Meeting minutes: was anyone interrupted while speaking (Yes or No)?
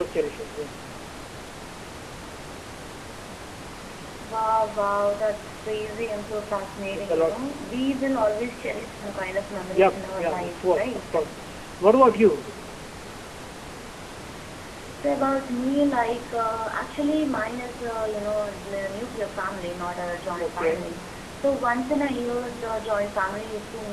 Yes